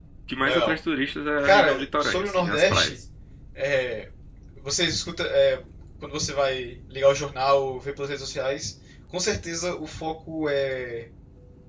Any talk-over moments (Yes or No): Yes